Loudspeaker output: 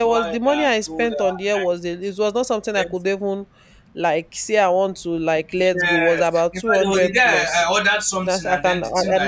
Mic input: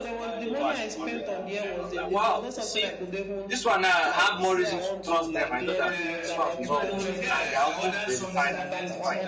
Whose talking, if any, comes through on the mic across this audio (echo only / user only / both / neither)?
both